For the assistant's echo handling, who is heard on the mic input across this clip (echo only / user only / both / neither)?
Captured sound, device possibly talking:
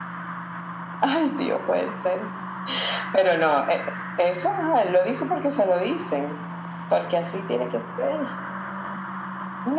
echo only